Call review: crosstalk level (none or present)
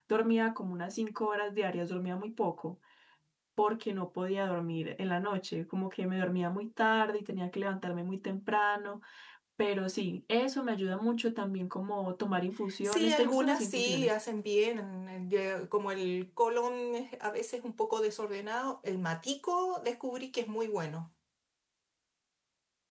present